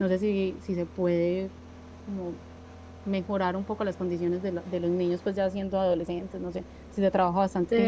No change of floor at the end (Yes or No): No